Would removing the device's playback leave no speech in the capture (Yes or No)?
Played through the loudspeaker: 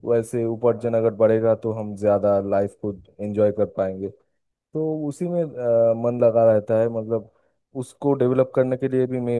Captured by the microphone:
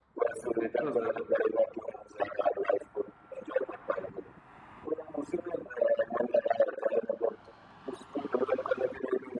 No